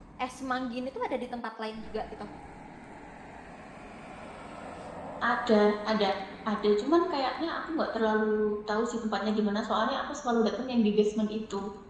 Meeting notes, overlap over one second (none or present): none